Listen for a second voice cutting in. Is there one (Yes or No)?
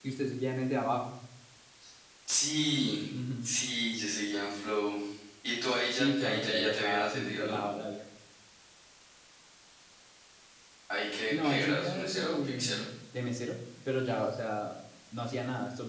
Yes